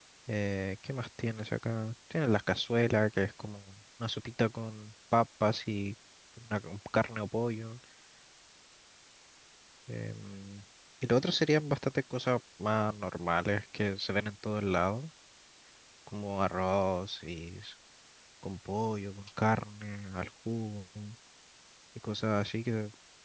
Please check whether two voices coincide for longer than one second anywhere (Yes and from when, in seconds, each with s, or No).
No